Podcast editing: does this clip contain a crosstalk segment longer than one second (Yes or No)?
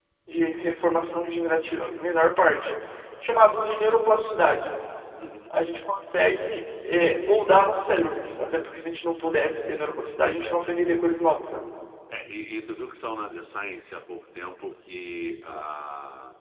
No